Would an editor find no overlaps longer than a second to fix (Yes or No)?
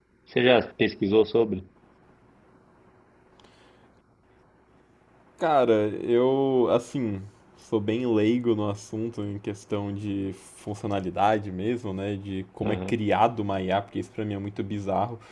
Yes